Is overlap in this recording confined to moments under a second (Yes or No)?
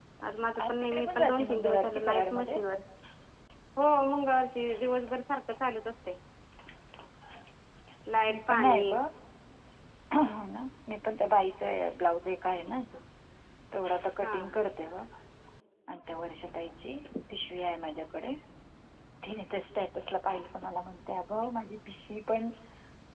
No